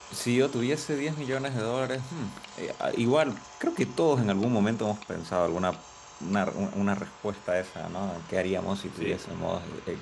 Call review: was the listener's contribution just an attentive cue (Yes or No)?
Yes